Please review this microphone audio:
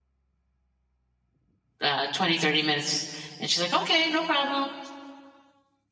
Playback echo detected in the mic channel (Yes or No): No